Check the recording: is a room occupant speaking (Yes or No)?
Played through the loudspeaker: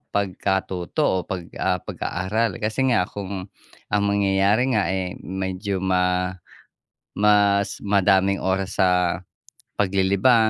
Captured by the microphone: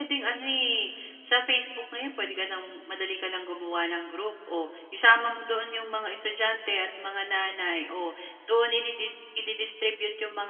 Yes